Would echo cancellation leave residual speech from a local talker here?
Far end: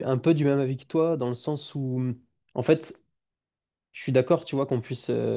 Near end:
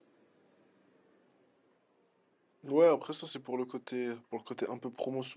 Yes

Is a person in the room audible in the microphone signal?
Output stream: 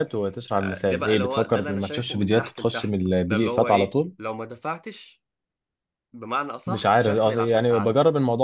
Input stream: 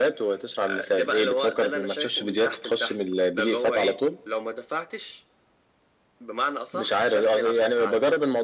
No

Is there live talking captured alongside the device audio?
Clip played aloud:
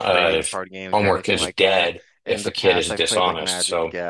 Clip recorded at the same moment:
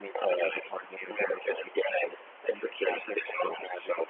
No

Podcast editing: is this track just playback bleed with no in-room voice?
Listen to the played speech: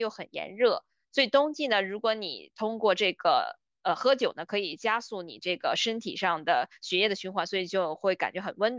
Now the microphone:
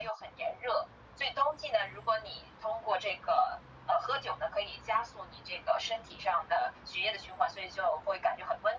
Yes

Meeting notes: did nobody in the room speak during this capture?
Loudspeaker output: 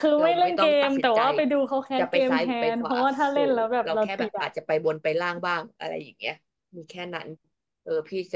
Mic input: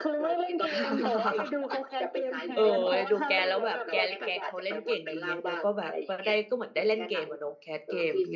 No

